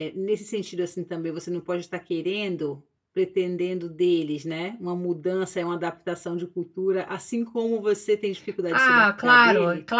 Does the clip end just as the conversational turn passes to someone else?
Yes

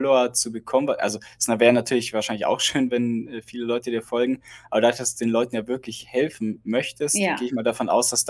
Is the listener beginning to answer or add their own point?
No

